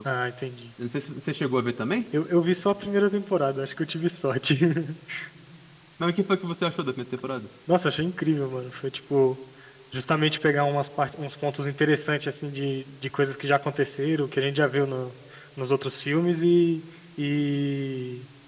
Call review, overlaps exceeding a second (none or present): none